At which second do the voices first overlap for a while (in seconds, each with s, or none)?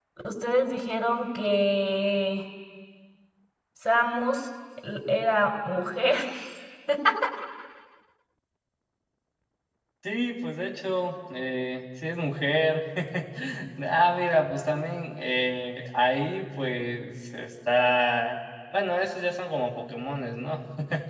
none